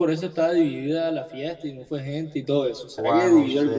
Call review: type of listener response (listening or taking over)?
taking over